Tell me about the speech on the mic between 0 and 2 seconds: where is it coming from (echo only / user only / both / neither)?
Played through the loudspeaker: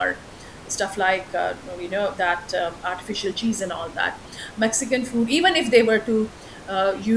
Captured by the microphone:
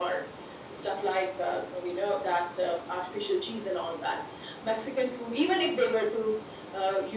echo only